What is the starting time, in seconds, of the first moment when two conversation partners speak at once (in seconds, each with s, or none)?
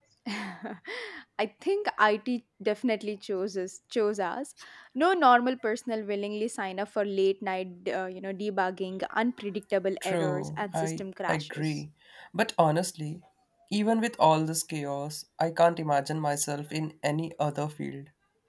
10.0 s